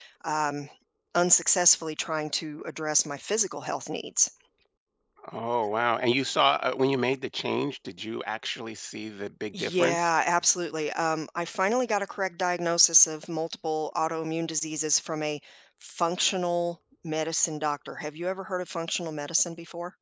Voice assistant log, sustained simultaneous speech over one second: none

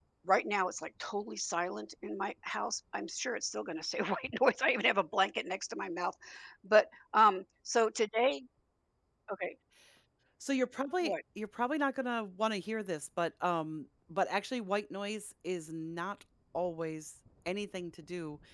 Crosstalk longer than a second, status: none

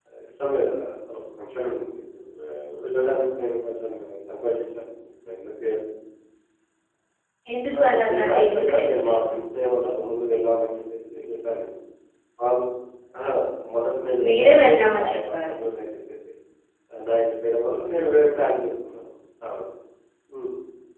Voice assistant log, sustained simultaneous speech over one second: present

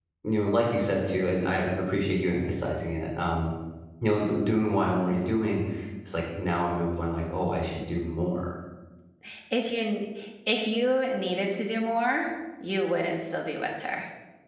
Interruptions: none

